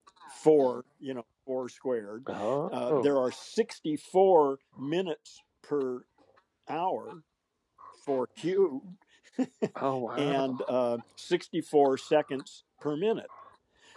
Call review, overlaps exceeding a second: none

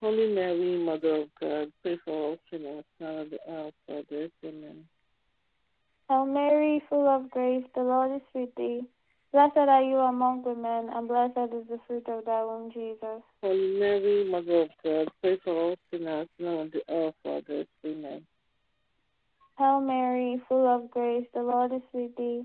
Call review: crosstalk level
none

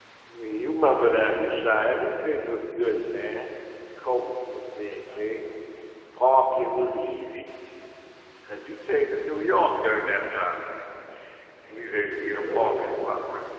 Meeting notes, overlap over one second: present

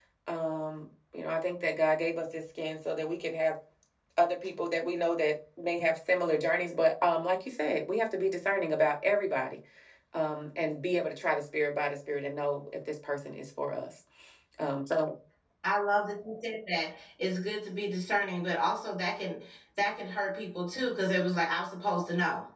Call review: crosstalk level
none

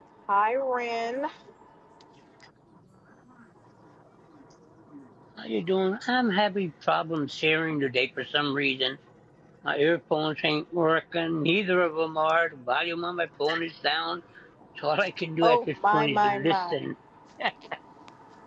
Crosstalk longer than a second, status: present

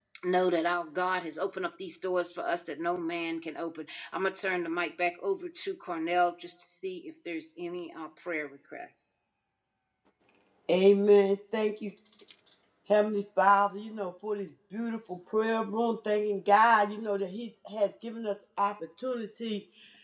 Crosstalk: none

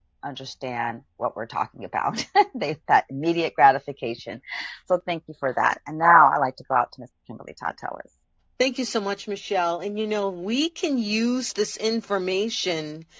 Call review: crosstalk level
none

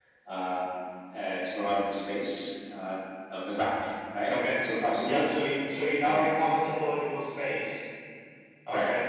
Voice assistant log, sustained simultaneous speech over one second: none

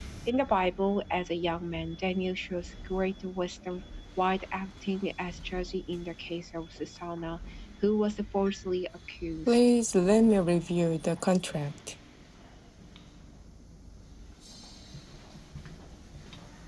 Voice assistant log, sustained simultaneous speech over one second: none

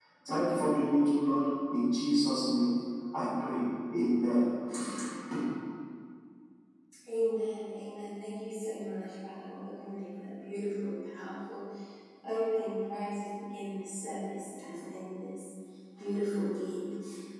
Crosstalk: none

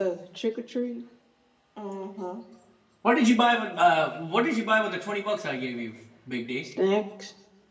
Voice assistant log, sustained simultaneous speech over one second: none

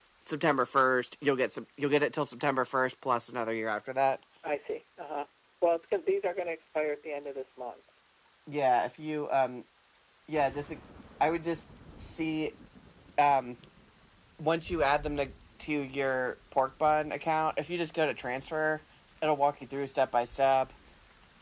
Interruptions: none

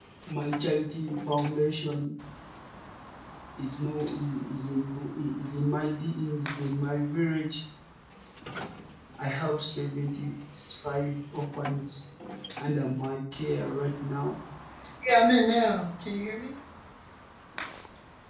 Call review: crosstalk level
none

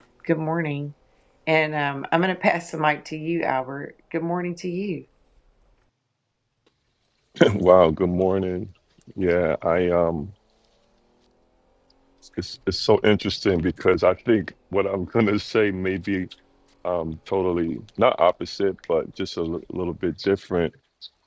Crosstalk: none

